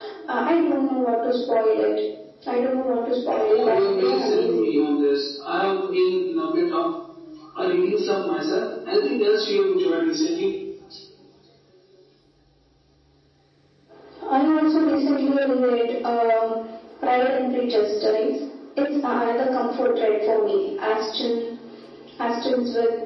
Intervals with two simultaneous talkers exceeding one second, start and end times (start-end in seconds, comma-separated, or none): 3.5-4.7